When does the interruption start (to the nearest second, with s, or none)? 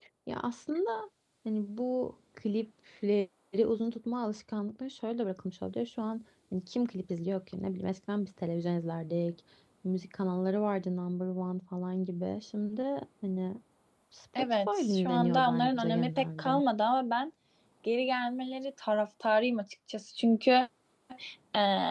14 s